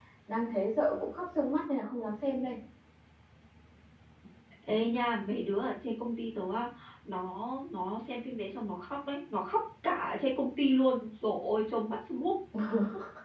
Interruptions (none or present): none